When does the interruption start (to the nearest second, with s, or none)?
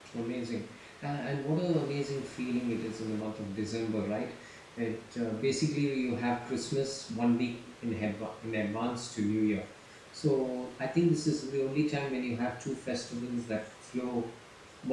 none